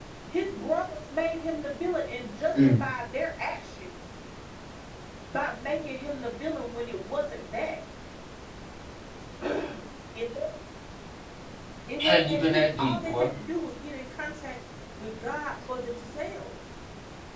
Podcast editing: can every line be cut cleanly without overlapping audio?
No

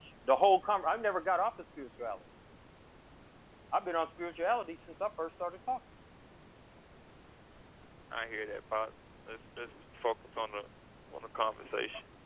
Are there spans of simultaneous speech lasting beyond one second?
No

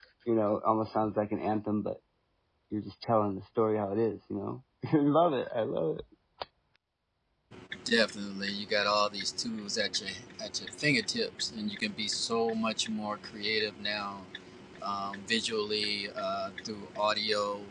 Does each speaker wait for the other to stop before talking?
Yes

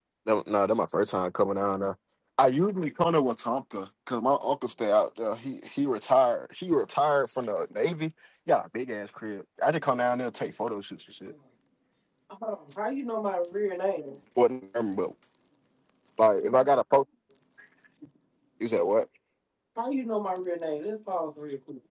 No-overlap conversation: Yes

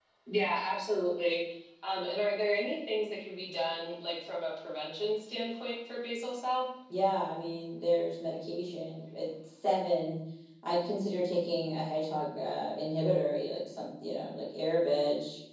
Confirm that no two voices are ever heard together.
Yes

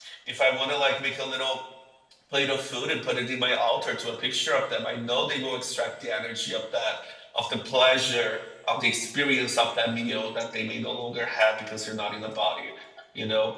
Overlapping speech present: No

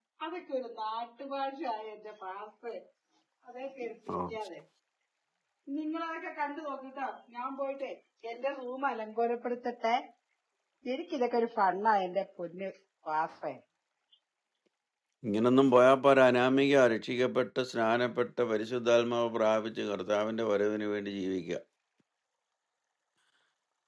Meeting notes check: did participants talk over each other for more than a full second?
No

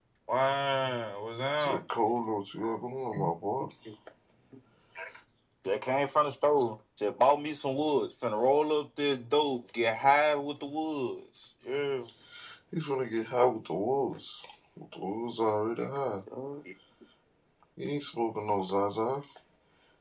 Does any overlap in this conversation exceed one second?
No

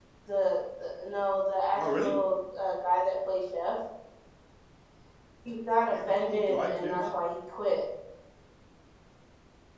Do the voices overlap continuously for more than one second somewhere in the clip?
Yes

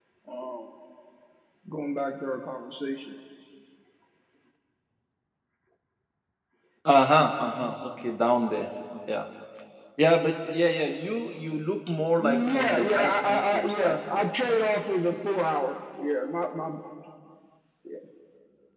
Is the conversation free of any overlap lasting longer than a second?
No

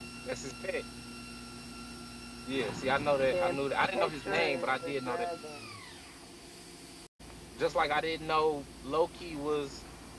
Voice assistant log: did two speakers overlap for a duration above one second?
Yes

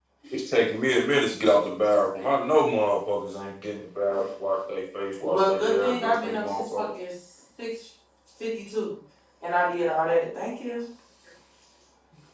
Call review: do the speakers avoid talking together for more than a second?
No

